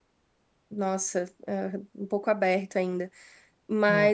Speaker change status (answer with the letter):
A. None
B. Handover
A